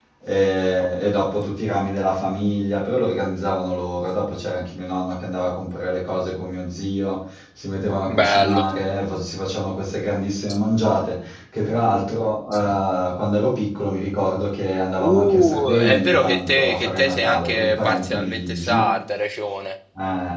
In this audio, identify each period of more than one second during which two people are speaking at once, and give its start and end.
15.0-18.9

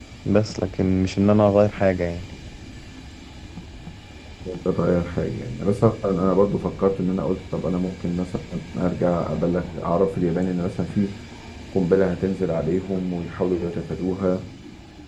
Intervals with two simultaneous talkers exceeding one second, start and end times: none

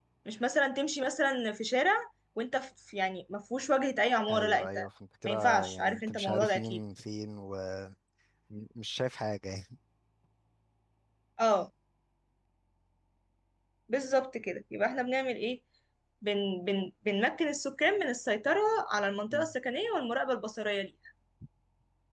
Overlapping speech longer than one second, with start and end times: 5.2-6.8

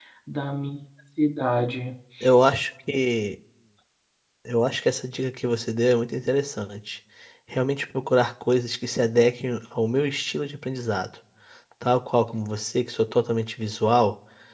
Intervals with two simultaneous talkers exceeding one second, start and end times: none

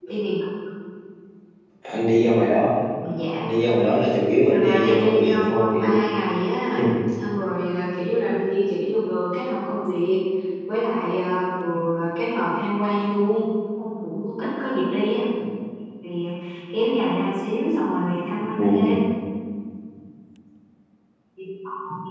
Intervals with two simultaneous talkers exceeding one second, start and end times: 4.5-6.0

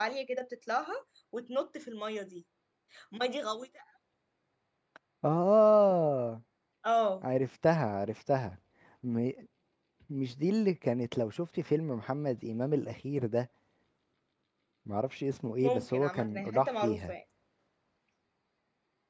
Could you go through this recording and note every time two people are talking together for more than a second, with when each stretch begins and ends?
15.6-17.1

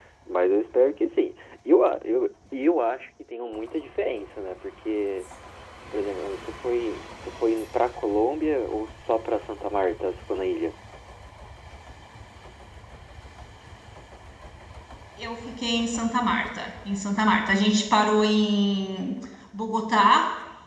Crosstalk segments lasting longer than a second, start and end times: none

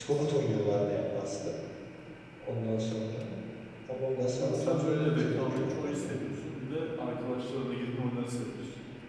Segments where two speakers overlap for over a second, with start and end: 4.4-6.1

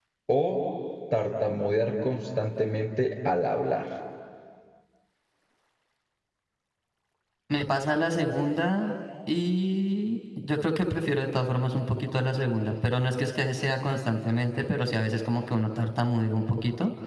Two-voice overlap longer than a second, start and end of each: none

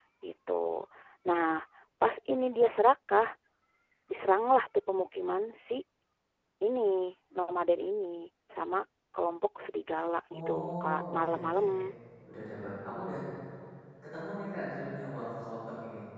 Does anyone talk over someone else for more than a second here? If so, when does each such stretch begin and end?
10.4-11.7

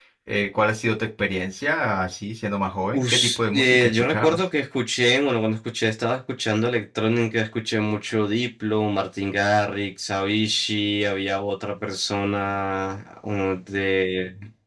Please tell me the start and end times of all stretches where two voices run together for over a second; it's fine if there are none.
2.9-4.4

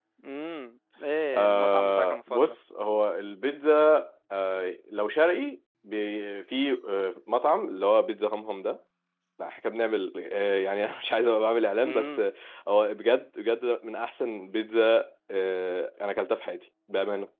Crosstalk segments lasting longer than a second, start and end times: 1.3-2.6

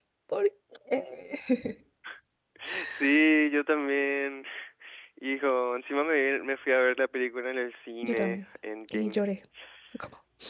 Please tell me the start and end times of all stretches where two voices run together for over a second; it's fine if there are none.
none

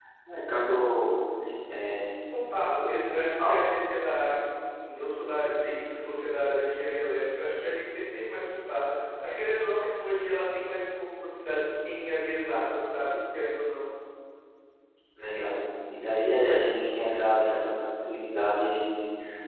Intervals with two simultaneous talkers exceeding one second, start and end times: none

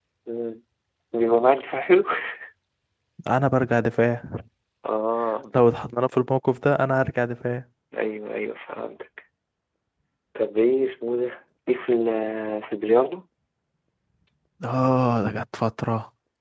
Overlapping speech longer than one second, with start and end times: none

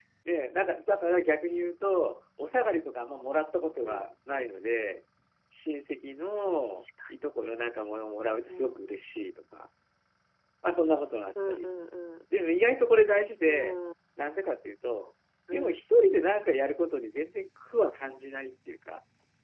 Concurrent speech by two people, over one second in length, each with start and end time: none

